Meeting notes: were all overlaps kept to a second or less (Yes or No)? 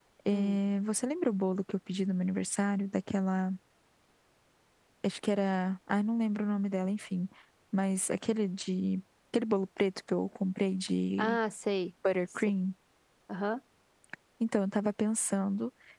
Yes